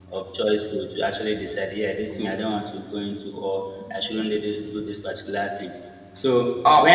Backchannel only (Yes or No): No